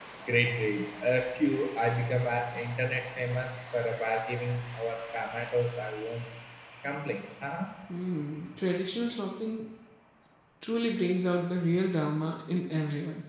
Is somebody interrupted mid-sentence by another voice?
No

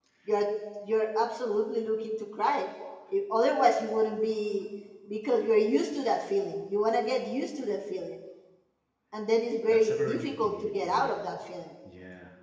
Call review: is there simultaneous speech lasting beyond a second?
Yes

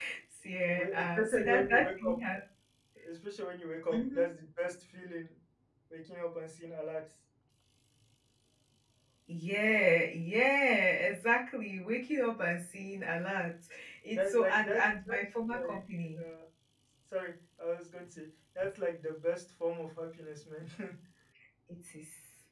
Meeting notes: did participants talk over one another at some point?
Yes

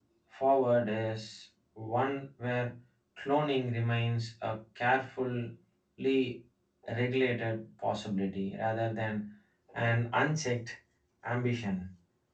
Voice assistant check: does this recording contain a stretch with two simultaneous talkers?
No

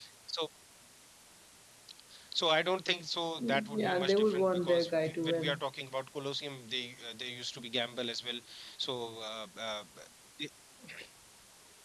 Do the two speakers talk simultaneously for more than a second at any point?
Yes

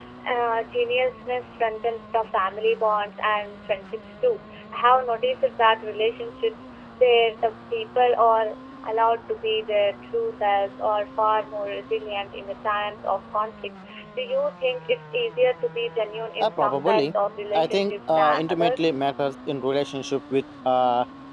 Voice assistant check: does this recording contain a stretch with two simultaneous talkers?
Yes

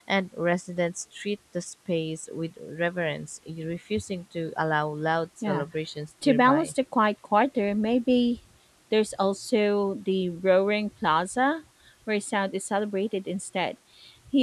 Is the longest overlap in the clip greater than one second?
No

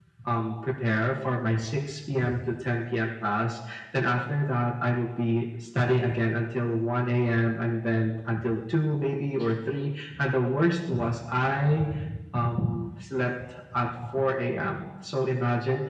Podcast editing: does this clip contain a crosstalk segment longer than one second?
No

